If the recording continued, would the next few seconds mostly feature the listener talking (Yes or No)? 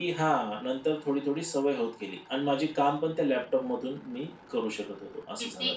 Yes